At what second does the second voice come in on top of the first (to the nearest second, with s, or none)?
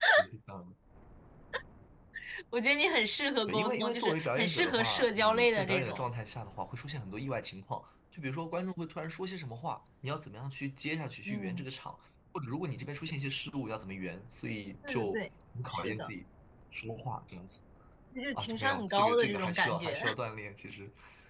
3 s